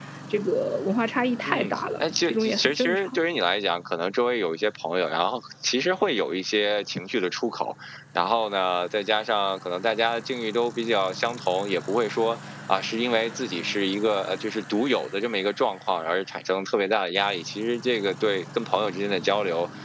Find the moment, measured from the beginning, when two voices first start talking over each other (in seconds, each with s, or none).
1.5 s